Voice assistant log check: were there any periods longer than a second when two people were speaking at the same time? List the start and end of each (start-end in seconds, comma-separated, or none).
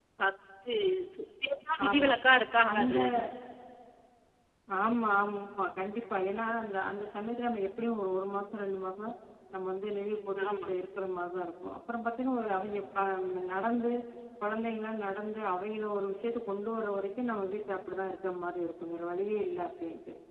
none